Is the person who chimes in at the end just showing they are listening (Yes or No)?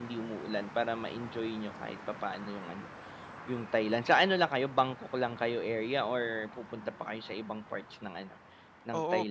No